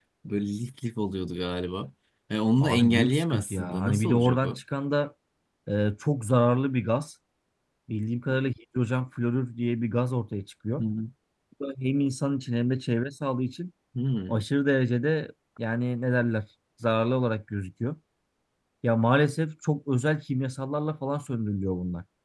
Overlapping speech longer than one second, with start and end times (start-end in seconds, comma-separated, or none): 2.6-4.6